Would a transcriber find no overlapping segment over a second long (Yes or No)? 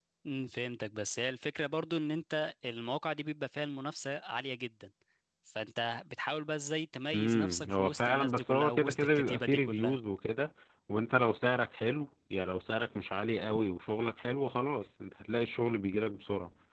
No